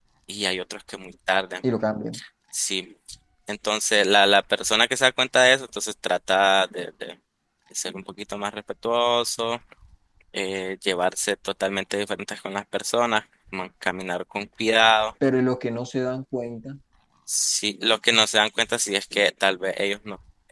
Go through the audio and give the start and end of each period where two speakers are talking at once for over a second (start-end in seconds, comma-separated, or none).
none